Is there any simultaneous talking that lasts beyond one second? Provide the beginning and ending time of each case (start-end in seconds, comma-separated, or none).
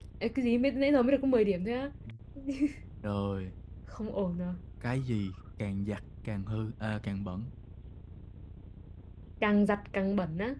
none